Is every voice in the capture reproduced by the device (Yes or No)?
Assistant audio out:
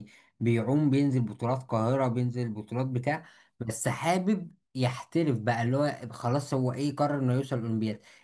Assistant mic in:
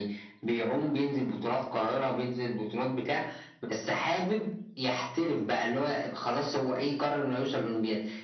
Yes